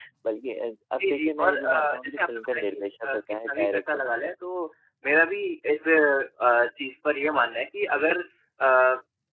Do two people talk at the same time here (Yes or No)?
Yes